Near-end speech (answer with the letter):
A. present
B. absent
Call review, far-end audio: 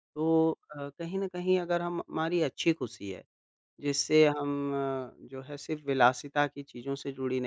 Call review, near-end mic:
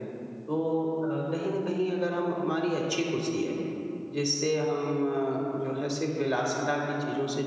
B